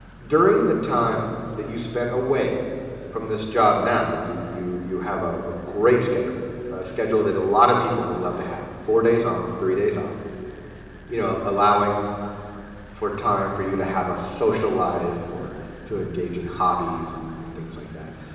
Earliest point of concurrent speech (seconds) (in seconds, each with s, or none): none